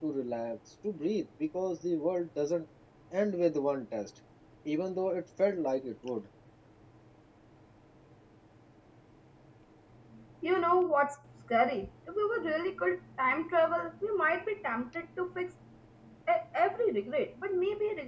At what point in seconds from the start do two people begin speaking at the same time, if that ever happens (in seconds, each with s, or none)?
none